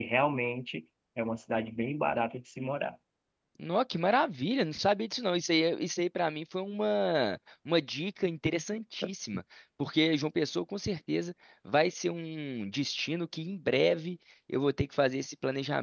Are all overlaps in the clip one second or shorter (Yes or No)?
Yes